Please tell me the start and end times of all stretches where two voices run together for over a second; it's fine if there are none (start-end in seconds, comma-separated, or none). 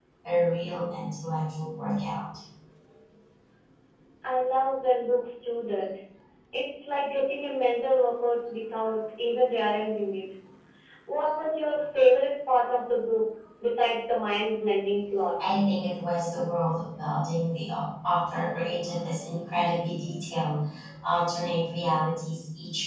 none